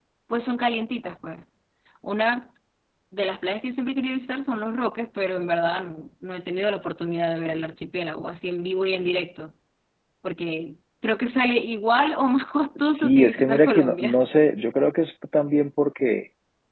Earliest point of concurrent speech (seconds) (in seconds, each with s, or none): 12.8 s